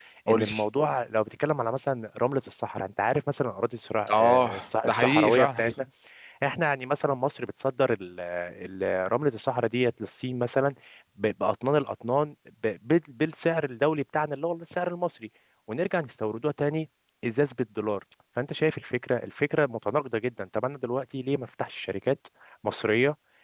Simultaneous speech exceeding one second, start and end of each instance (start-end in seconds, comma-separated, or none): 4.1-5.6